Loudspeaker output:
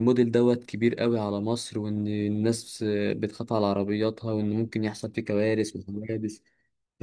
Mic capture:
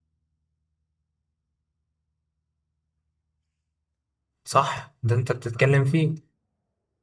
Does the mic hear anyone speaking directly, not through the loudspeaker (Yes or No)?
Yes